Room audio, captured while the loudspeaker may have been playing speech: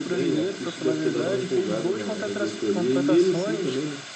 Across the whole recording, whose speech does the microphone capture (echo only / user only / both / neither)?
both